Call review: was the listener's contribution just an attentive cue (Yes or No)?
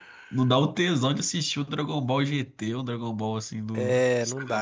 No